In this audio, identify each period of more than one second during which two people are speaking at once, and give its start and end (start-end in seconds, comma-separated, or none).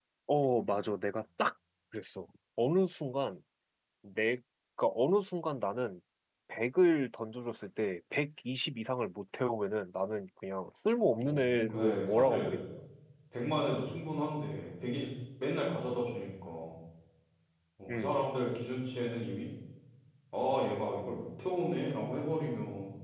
11.1-12.7